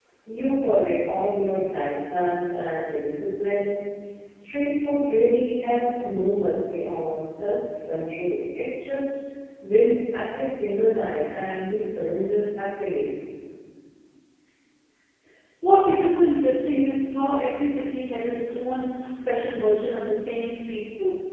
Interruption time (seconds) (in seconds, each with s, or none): none